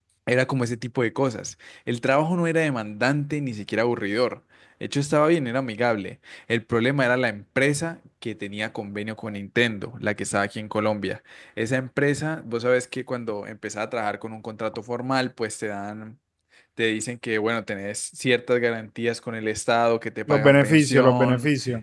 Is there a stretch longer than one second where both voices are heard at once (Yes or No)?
Yes